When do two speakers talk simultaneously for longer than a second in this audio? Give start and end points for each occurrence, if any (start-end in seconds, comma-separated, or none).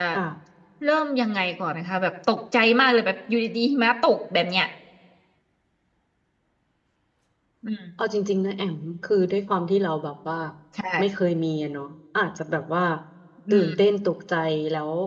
none